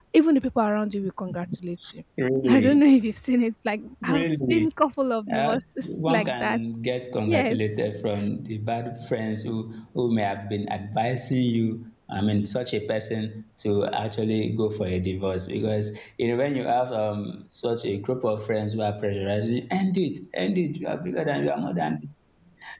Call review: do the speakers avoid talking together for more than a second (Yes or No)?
No